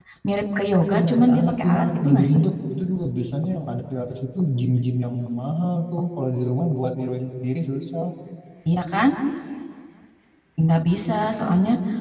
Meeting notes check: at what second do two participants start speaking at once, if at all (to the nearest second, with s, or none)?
1 s